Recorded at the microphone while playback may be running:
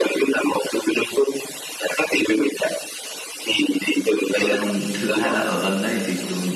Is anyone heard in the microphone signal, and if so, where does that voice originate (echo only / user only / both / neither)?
both